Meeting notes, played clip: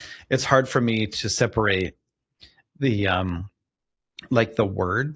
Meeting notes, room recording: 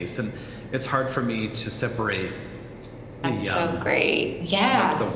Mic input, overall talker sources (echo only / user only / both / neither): both